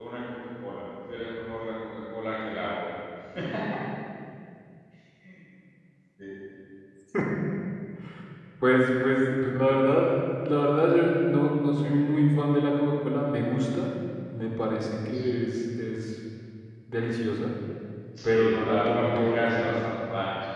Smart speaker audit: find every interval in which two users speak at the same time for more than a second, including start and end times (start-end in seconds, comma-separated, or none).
18.2-19.7